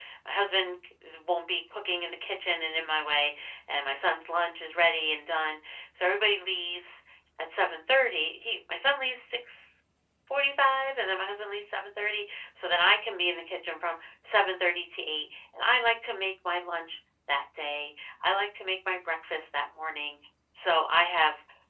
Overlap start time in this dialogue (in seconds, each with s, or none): none